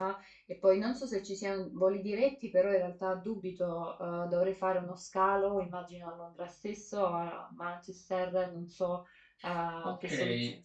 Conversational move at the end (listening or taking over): taking over